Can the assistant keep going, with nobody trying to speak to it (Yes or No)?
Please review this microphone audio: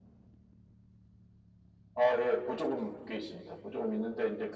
Yes